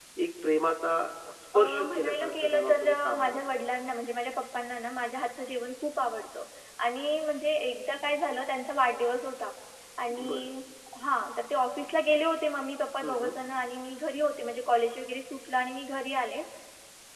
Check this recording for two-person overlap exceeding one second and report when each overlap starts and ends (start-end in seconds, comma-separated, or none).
1.5-3.4